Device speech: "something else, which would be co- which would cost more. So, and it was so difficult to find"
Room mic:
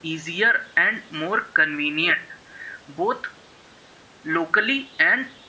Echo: none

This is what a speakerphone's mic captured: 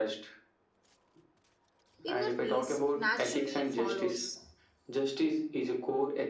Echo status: present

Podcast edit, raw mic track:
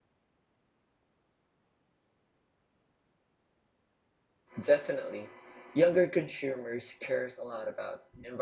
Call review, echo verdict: none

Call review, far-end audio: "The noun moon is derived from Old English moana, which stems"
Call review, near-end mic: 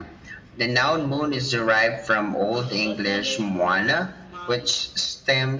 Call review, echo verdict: present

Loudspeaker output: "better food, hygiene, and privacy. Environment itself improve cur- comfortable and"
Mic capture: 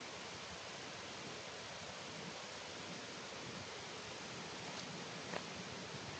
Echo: none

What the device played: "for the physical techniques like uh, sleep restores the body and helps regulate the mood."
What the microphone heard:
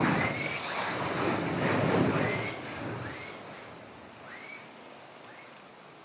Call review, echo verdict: none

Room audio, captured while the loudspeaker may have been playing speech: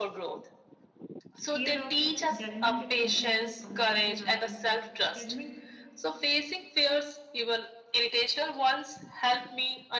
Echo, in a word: present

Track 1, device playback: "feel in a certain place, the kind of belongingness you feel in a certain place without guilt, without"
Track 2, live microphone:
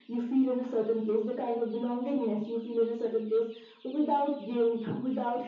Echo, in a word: present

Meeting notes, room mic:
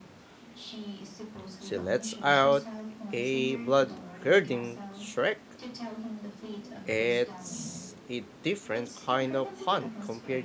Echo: present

